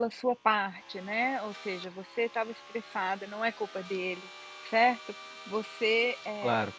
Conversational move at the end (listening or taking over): listening